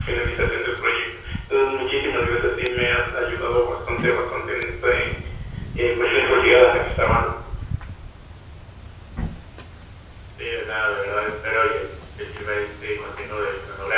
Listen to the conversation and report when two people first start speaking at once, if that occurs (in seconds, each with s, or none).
none